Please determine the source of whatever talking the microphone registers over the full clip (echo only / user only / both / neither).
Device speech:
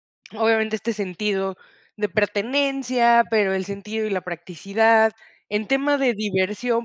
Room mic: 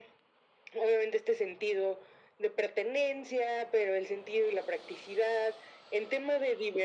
echo only